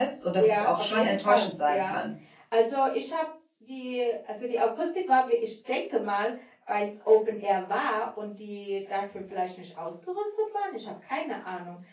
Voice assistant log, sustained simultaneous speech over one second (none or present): present